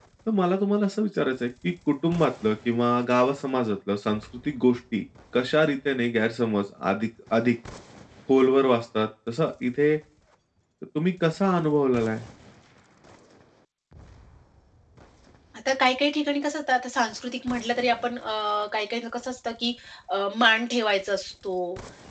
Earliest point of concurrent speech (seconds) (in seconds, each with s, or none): none